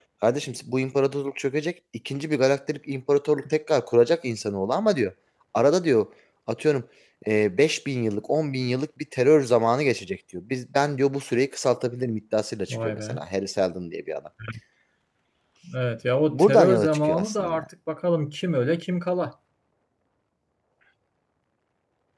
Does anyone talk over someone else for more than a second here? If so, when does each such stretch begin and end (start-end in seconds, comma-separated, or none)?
16.3-17.6